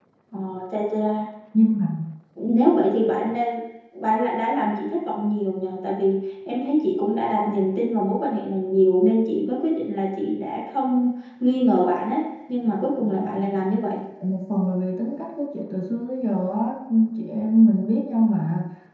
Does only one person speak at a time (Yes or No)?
Yes